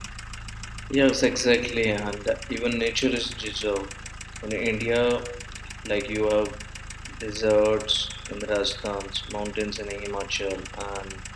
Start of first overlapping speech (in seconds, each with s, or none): none